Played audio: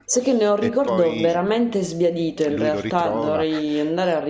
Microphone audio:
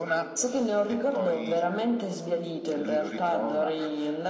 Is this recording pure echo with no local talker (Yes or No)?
Yes